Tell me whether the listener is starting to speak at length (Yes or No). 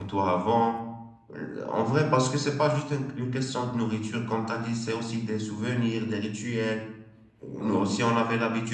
No